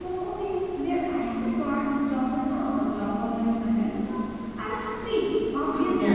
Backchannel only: Yes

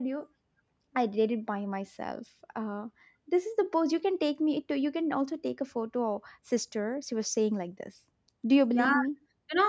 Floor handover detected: Yes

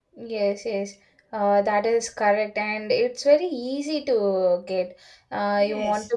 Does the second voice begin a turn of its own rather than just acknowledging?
No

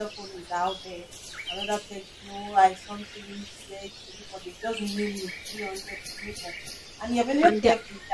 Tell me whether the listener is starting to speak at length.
No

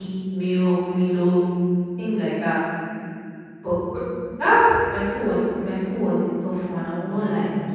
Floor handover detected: Yes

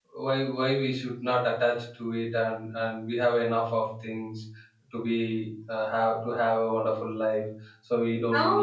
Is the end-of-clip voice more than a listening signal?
Yes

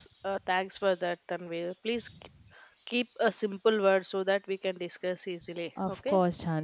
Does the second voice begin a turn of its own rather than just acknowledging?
Yes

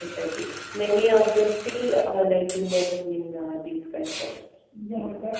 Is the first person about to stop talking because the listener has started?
Yes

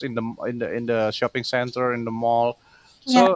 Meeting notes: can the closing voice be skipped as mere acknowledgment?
Yes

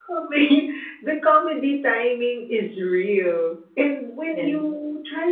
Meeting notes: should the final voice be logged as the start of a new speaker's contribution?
No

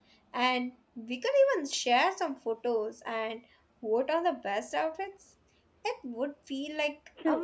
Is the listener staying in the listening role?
No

